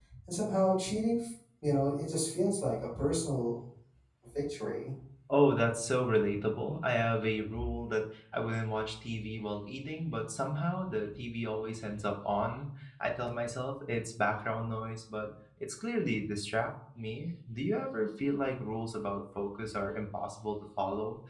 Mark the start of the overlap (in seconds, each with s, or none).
none